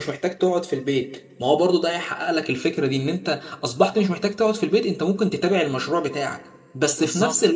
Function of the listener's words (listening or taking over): listening